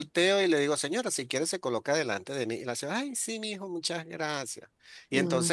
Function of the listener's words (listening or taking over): listening